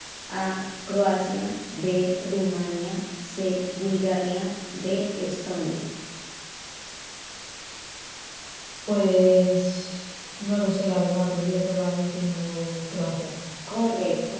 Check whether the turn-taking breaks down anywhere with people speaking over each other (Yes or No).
No